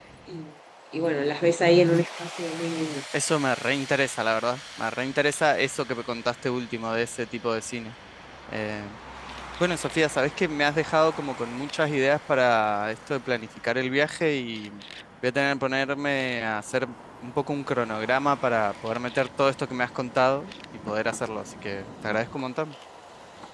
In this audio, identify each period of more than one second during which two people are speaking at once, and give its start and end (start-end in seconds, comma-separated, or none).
none